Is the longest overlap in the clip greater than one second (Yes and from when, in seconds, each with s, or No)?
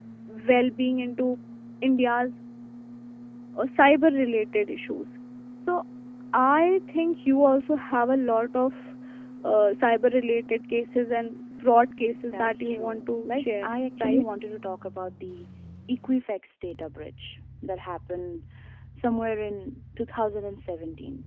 Yes, from 12.2 s